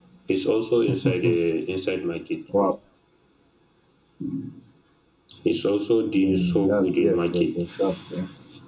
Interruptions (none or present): present